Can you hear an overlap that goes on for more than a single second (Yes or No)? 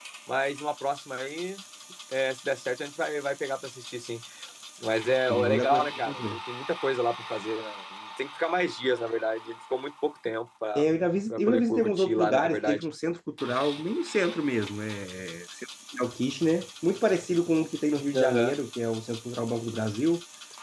Yes